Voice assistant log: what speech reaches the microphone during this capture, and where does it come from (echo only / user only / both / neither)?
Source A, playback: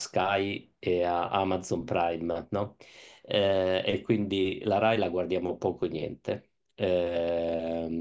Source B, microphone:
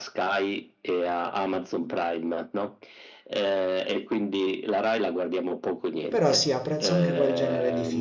both